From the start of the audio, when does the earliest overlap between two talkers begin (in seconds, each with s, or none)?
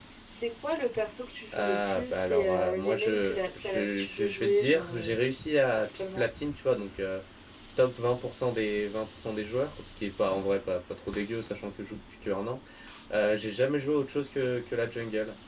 1.5 s